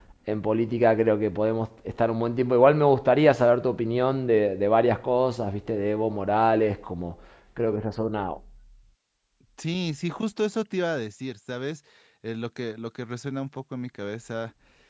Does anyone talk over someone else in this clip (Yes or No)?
No